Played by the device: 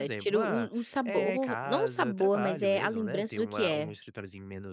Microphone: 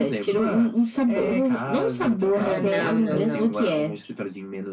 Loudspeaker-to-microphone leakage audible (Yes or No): Yes